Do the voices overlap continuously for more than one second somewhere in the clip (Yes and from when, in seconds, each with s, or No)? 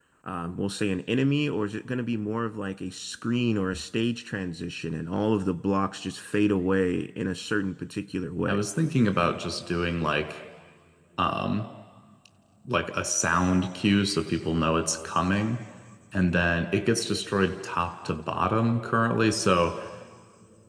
No